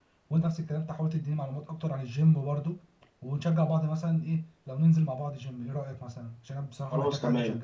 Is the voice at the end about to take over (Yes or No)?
Yes